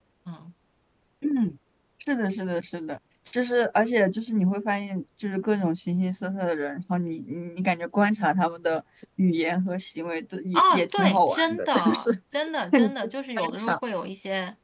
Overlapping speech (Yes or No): Yes